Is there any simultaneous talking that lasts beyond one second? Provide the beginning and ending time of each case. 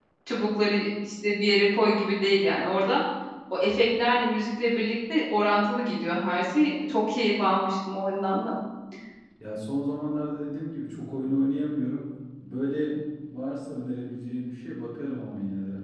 none

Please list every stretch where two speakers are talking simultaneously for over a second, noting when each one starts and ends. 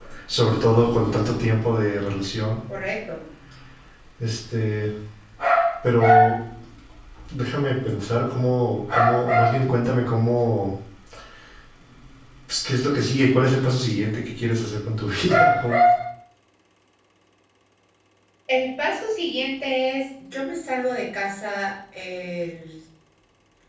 none

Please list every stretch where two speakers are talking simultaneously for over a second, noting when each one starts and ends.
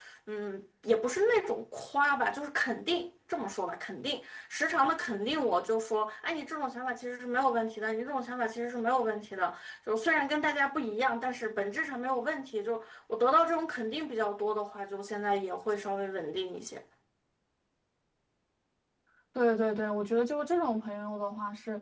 none

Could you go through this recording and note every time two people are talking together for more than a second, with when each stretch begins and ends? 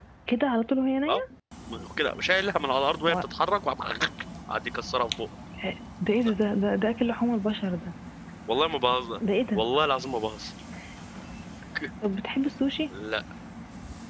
none

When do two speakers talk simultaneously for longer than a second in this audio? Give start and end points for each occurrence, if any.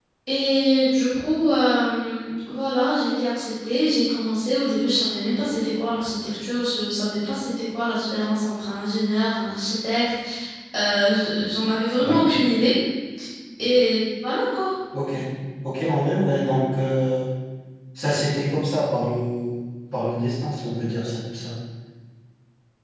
none

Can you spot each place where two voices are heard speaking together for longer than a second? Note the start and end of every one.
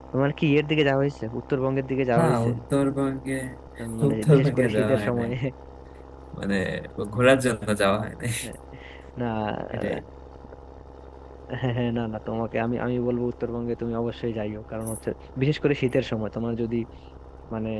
4.1-5.3

